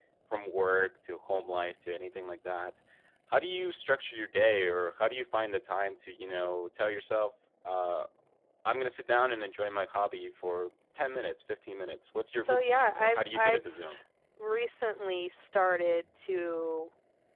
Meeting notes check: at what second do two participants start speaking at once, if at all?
12 s

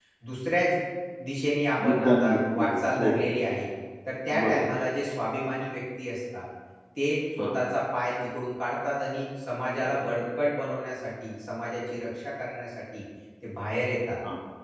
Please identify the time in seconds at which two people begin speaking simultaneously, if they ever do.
2 s

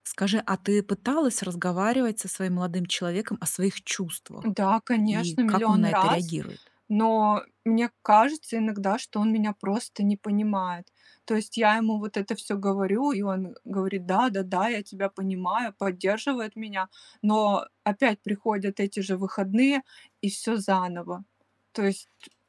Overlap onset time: 5 s

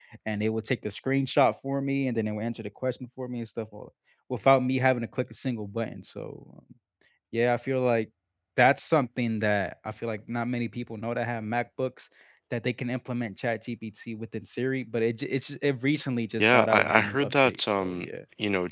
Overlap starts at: 16 s

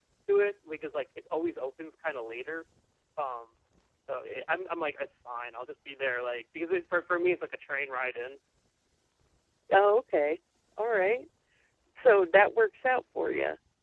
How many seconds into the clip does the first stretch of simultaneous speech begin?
none

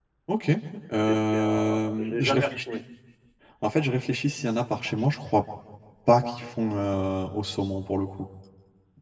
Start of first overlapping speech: 1 s

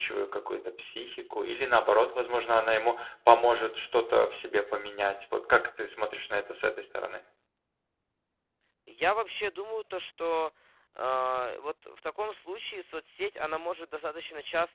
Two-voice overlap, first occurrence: none

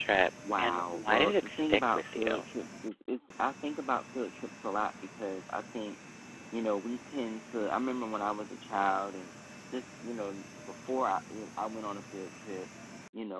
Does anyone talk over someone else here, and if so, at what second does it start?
1 s

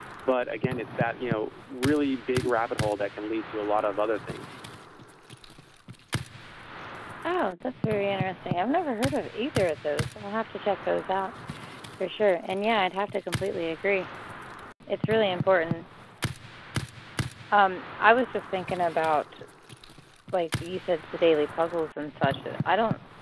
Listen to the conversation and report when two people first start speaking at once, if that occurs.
none

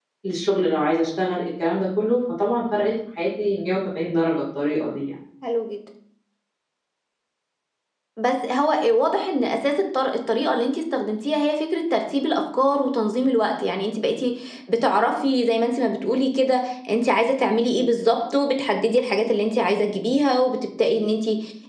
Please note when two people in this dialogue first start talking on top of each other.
none

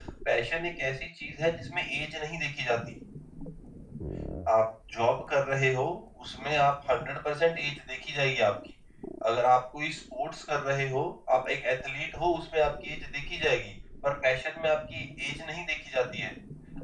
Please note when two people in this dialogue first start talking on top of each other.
none

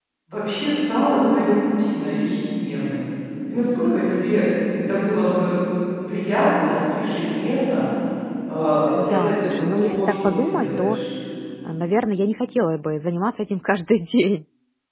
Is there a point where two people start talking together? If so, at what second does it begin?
9 s

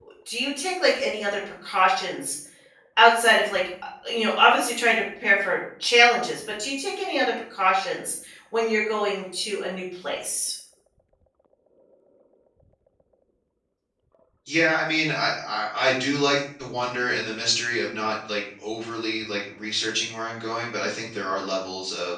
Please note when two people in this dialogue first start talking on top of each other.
none

